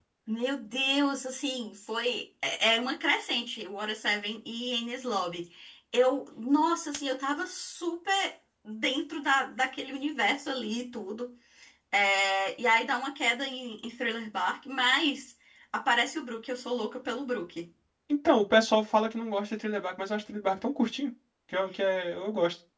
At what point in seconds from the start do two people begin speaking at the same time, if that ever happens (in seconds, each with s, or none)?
none